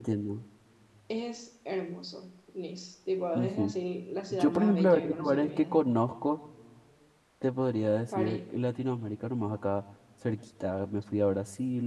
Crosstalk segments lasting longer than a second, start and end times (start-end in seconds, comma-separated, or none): 4.3-5.8